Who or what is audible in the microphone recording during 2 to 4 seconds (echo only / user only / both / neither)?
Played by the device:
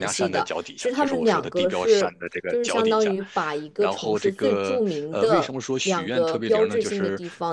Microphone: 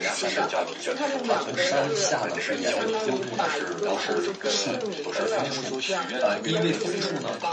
both